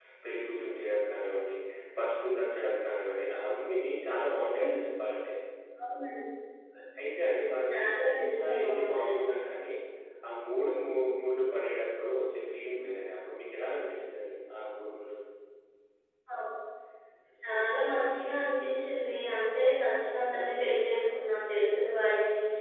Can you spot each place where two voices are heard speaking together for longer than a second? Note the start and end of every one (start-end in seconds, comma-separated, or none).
7.7-9.4